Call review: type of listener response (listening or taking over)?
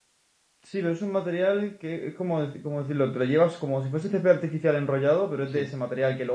listening